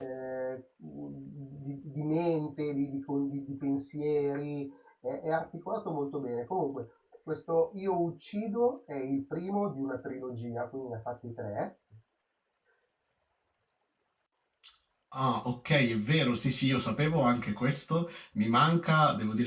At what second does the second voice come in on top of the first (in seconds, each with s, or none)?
none